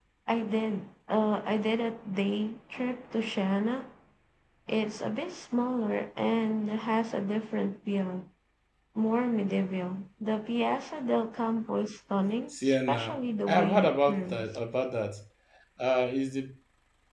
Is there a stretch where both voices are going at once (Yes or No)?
Yes